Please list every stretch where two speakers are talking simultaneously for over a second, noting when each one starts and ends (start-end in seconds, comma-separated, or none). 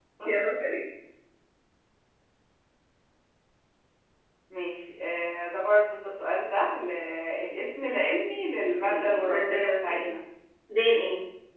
8.8-10.1